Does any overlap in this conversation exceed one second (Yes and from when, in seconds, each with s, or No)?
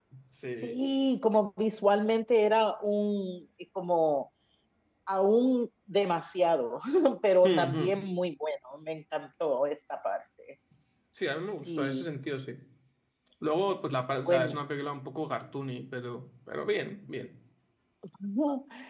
No